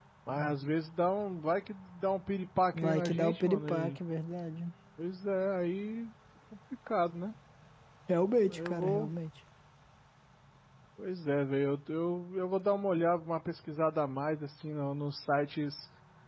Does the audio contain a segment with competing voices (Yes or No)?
Yes